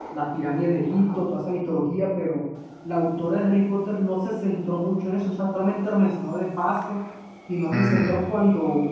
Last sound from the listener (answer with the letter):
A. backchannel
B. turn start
A